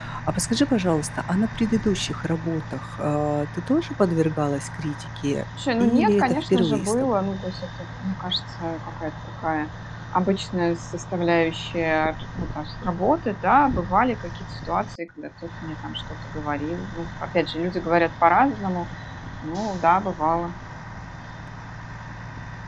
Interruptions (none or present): present